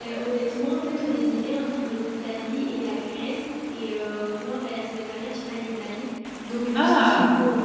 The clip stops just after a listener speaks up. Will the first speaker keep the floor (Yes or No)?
Yes